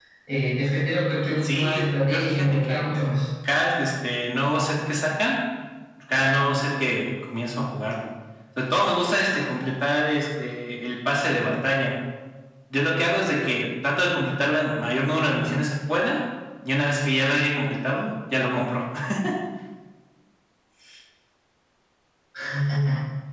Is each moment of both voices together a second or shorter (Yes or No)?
No